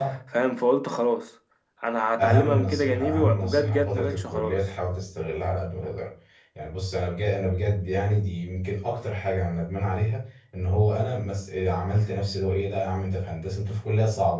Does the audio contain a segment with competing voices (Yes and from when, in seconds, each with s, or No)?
Yes, from 2.2 s